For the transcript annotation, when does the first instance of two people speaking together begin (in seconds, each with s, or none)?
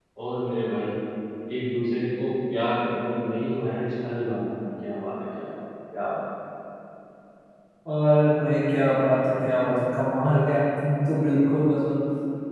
none